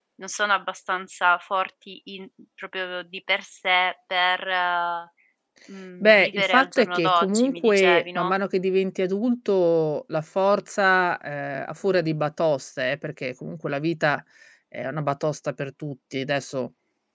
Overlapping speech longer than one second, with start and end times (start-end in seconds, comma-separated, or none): 6.0-8.3